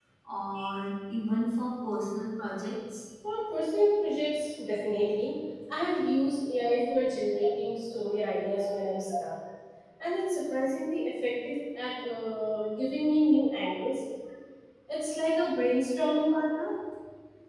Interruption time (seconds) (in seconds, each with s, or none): none